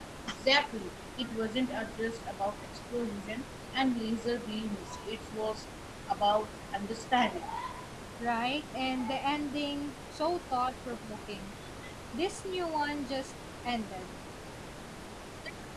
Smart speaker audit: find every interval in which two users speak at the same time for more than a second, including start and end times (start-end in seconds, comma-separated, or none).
none